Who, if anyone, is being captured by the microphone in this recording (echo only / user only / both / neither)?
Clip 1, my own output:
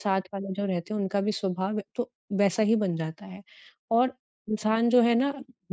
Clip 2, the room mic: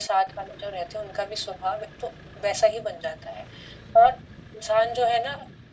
echo only